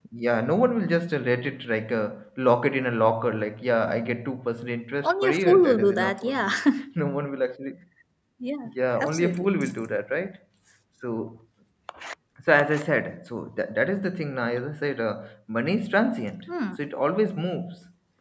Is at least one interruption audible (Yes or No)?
Yes